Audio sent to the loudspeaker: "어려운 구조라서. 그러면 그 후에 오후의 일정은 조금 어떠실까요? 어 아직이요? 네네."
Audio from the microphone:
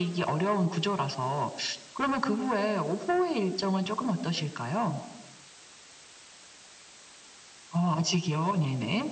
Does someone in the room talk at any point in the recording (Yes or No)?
No